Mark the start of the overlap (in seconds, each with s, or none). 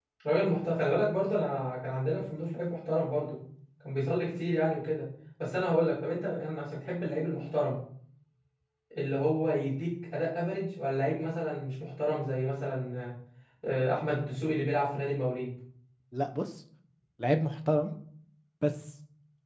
none